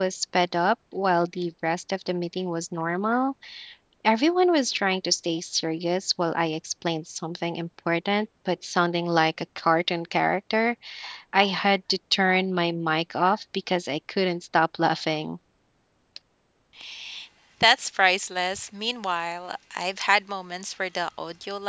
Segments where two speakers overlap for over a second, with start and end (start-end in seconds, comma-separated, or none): none